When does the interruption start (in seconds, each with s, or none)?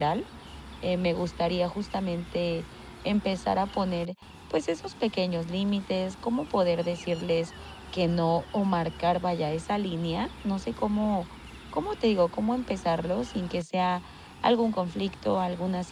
none